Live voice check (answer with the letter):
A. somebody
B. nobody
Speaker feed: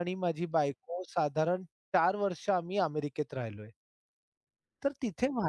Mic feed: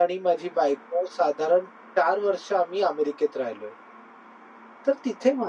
B